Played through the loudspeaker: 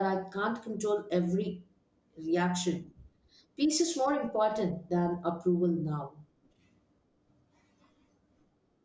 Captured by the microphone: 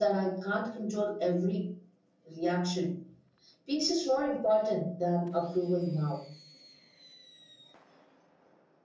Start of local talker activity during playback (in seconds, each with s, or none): none